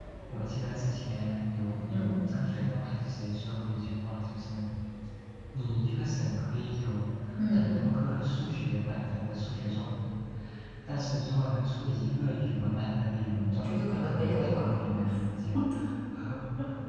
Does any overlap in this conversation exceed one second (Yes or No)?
Yes